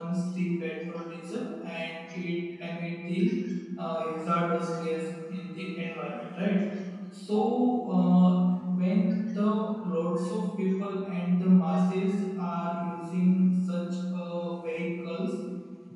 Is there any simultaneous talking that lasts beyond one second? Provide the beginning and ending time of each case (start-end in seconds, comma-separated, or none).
none